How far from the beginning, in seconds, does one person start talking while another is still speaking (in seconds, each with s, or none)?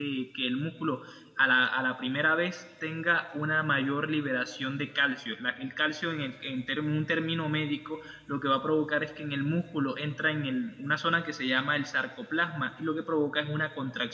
none